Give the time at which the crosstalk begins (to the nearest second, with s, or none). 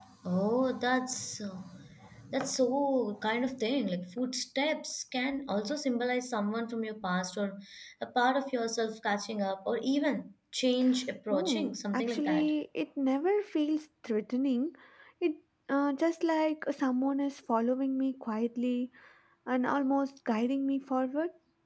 11 s